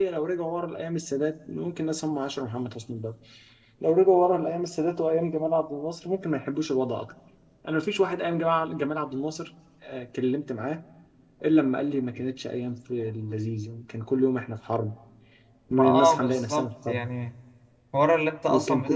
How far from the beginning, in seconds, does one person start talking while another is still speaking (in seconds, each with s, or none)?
15.7 s